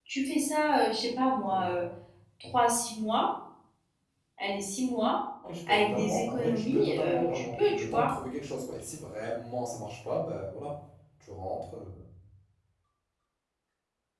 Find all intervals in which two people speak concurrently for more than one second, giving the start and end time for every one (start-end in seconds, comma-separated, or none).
5.7-8.1